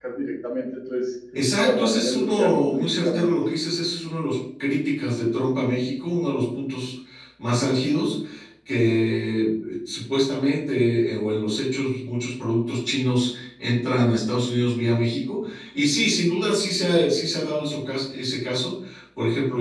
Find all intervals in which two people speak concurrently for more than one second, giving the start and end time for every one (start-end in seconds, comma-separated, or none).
1.6-3.3